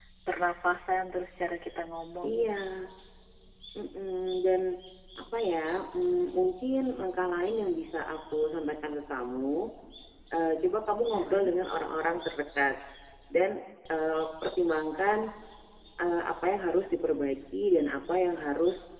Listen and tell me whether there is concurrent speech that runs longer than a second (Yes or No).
No